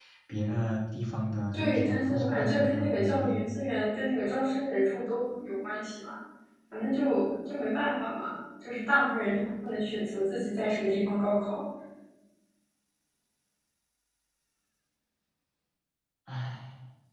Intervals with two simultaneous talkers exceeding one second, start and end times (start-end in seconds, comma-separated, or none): 1.5-3.4